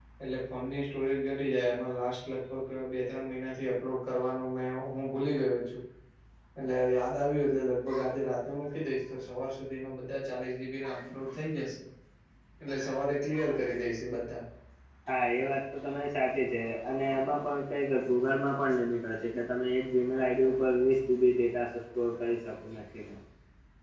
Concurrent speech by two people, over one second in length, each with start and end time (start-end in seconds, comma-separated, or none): none